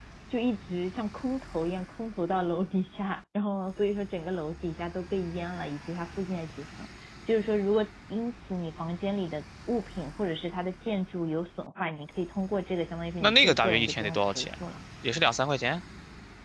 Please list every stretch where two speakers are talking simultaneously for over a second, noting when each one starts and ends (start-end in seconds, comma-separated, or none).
13.2-14.6